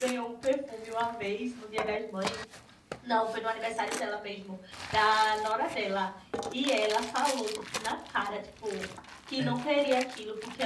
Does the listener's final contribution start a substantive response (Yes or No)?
No